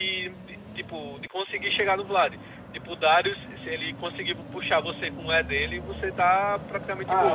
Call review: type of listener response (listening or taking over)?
taking over